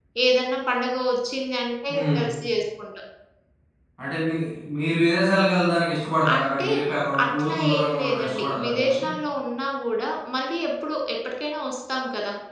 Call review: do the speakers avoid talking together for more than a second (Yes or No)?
No